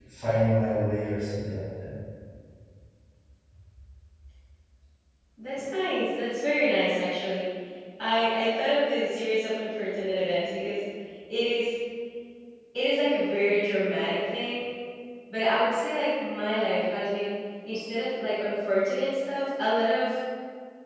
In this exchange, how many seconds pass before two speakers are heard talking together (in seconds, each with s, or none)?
none